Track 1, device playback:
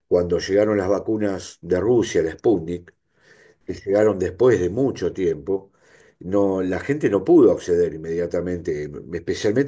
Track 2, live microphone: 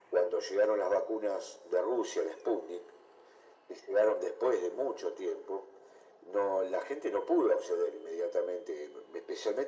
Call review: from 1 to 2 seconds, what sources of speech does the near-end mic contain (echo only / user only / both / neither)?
echo only